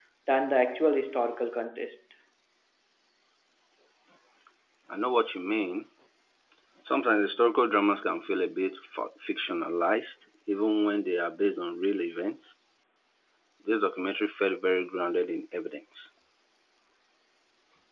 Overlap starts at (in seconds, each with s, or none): none